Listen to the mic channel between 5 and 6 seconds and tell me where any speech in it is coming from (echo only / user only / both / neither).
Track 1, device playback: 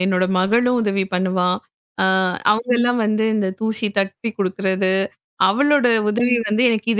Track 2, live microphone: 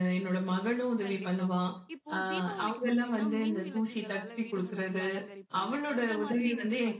both